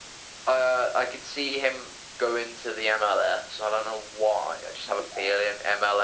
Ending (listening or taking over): listening